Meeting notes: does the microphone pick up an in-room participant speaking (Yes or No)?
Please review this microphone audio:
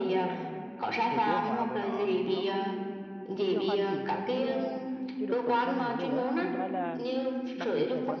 Yes